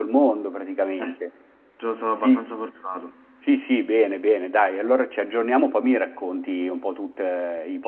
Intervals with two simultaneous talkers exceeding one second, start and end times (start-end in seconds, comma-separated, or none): none